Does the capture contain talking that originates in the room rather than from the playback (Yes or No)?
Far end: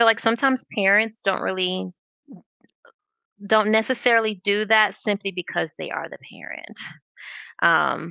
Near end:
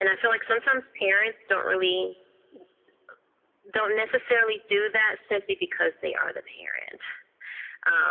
No